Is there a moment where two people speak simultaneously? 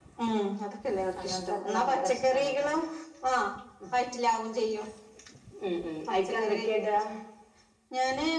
Yes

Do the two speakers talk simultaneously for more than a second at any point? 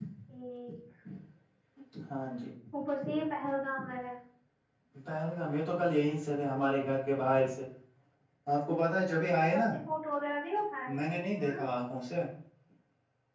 No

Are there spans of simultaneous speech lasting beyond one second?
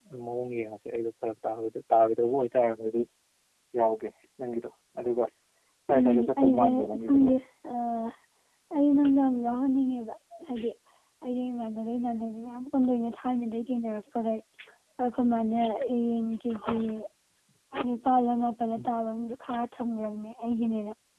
Yes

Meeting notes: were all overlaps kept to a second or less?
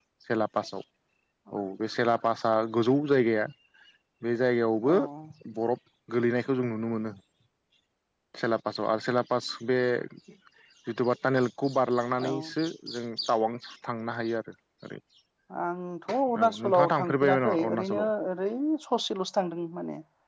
No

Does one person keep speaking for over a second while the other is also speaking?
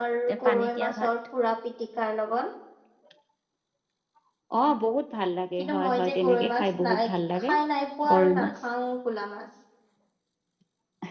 Yes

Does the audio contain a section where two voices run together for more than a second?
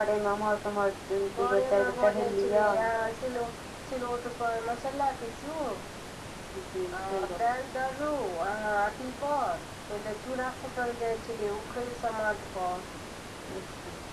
Yes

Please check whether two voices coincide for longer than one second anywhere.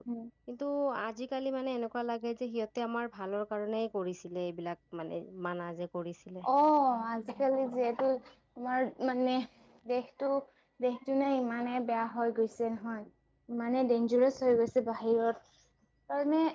No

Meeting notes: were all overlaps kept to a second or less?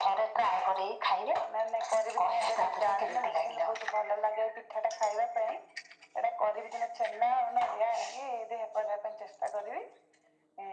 No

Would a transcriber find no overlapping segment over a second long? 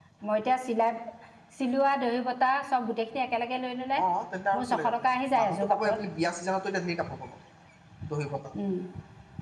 No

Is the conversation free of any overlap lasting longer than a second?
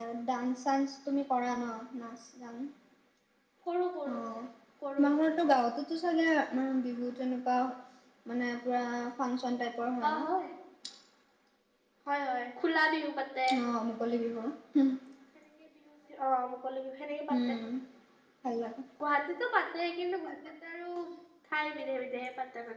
Yes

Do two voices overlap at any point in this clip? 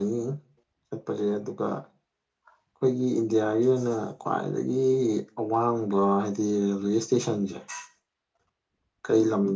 No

